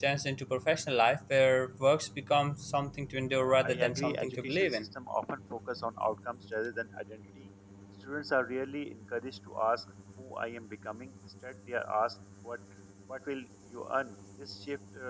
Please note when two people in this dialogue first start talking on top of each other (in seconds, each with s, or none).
3.4 s